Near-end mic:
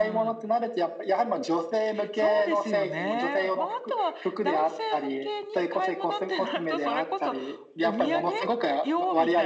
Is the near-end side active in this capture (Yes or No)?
No